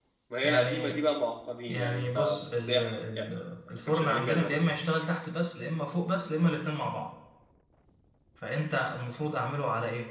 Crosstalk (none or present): present